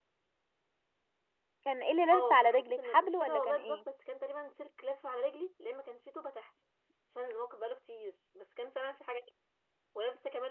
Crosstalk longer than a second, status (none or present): present